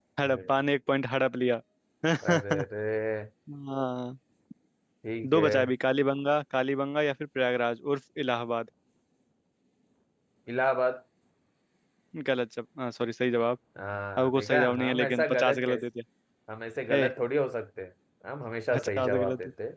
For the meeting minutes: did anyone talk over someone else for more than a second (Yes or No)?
Yes